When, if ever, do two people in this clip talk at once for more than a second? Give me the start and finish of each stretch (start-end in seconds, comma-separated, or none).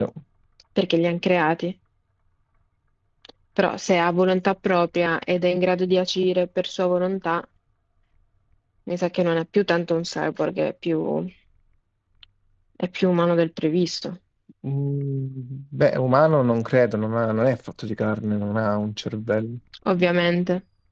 none